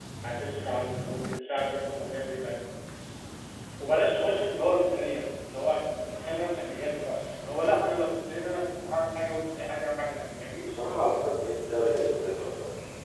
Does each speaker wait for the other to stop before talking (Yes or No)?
Yes